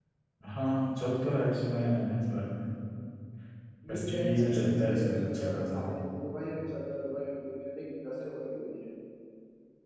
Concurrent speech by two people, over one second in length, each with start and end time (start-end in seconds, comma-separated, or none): 3.9-5.8